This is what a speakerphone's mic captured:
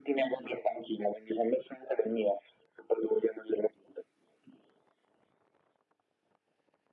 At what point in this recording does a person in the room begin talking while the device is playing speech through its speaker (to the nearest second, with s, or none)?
none